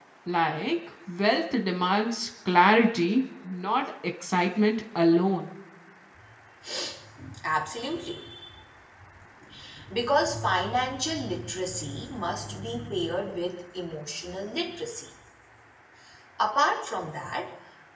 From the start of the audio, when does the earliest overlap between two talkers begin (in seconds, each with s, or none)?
none